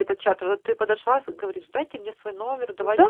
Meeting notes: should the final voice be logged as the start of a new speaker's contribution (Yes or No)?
Yes